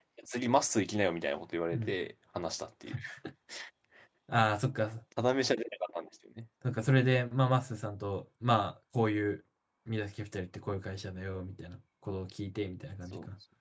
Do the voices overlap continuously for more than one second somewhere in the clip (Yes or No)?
No